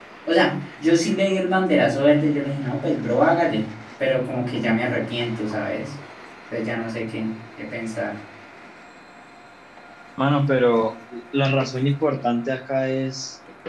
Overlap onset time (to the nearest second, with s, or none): none